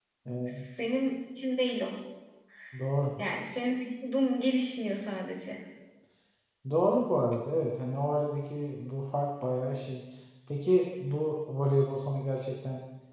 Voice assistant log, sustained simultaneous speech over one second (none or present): none